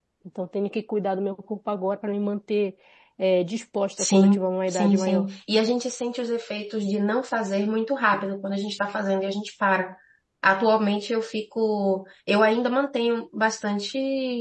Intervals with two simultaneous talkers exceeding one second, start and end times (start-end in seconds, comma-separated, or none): 4.0-5.3